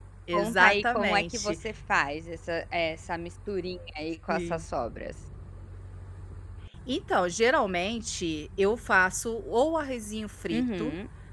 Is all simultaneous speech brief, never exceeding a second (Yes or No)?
No